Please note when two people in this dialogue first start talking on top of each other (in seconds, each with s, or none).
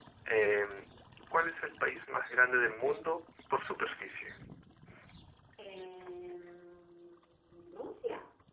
none